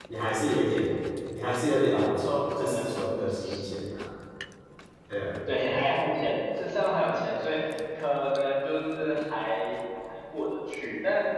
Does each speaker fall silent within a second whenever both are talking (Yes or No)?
No